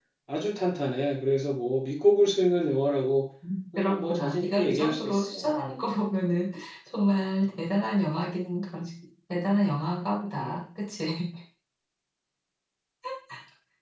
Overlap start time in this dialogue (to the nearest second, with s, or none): 4 s